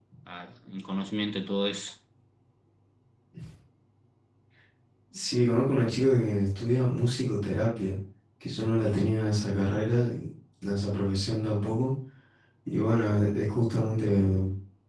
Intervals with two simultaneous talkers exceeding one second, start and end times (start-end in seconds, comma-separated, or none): none